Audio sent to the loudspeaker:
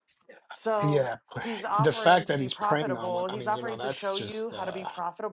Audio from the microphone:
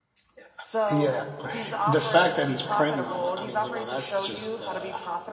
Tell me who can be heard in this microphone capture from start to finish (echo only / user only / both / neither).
echo only